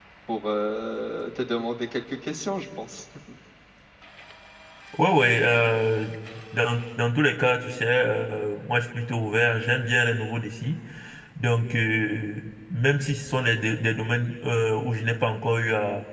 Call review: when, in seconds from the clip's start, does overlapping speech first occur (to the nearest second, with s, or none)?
none